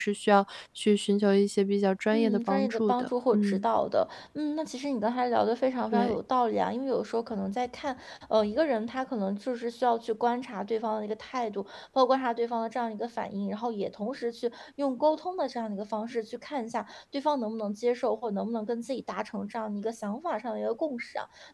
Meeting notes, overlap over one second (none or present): present